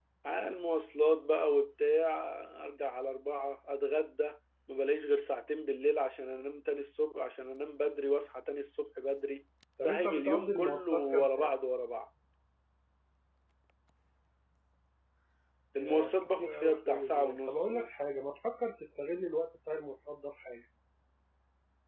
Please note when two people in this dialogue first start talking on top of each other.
9.8 s

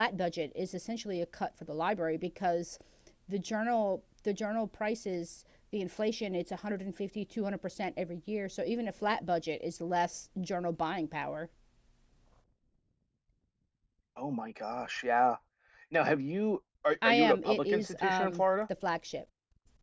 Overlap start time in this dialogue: 17.0 s

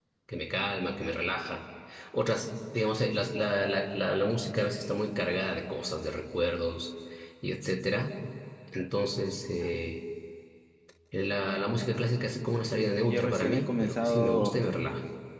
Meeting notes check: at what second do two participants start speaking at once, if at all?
13.1 s

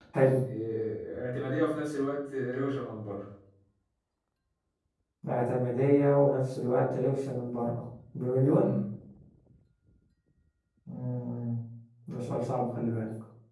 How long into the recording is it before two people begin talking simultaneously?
none

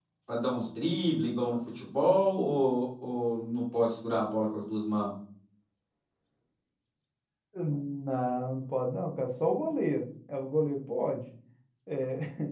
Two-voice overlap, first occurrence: none

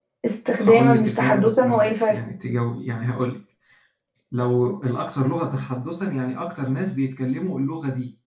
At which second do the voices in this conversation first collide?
0.6 s

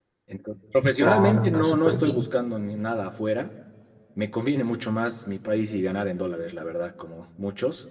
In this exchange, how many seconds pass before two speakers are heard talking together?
1.0 s

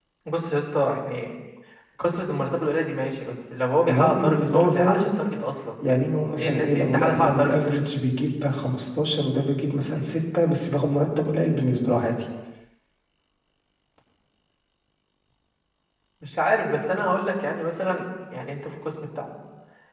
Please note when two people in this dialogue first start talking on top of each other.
3.9 s

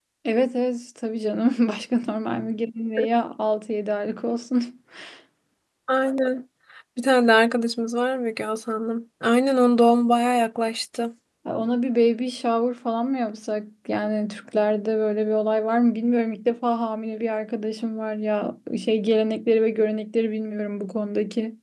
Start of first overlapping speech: none

